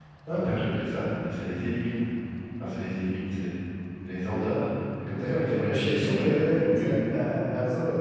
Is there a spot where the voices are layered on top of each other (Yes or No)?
Yes